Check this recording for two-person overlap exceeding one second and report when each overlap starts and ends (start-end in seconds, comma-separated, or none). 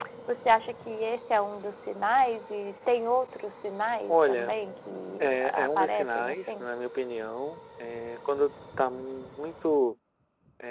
5.2-6.7